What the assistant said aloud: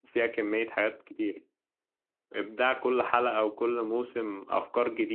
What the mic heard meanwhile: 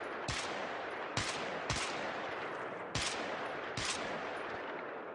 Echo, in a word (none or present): none